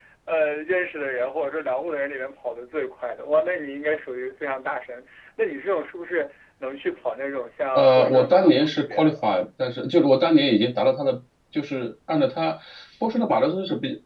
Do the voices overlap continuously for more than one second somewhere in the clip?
Yes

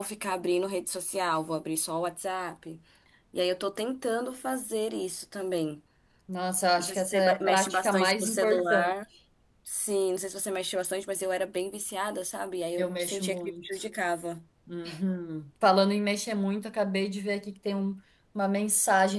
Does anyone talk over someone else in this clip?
Yes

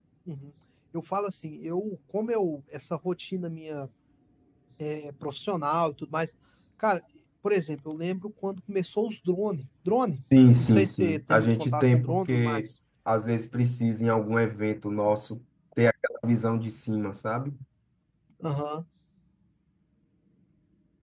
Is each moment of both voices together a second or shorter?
No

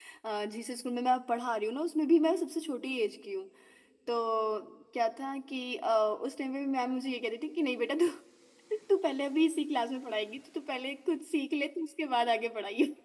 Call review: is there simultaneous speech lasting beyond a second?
No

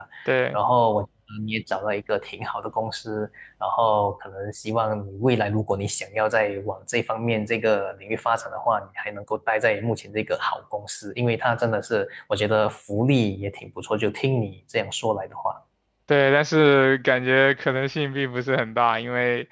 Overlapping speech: No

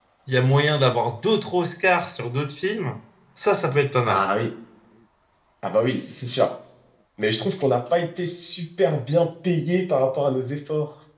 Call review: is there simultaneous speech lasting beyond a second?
No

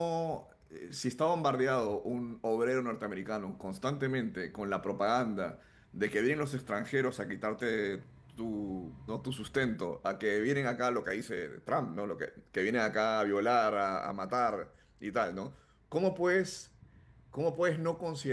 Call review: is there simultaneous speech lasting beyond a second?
No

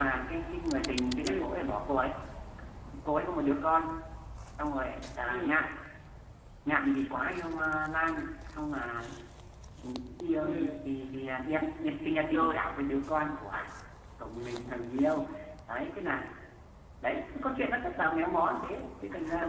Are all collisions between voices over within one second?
Yes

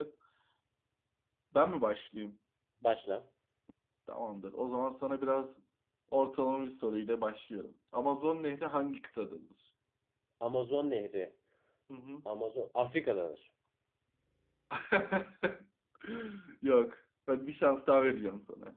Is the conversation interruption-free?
Yes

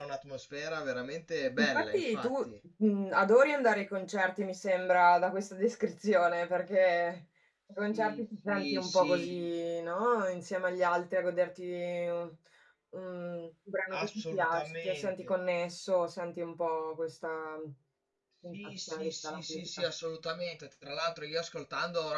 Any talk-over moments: Yes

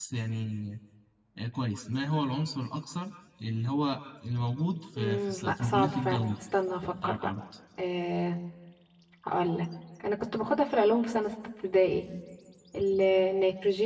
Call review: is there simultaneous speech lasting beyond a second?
Yes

